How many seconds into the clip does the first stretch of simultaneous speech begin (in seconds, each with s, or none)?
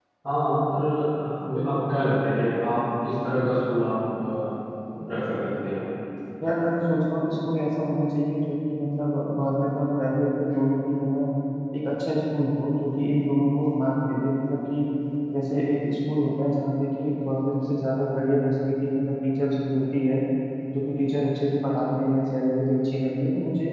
none